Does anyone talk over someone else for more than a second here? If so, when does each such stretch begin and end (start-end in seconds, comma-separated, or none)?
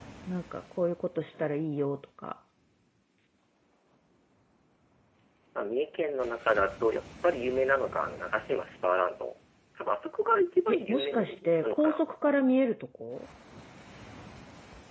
10.7-12.0